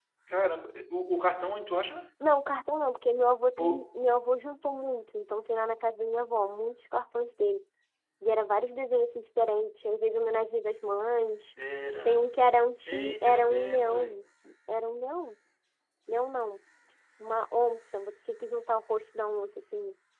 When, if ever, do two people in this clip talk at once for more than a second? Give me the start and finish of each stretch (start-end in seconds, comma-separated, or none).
12.8-14.2